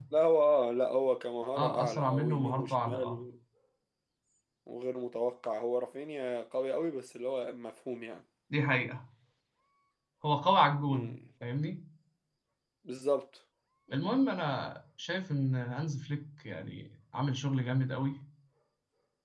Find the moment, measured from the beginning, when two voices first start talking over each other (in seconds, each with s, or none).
1.6 s